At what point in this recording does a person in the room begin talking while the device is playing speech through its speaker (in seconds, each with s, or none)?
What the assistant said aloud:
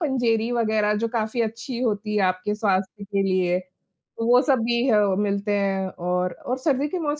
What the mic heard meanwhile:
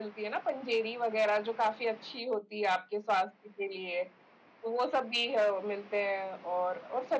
none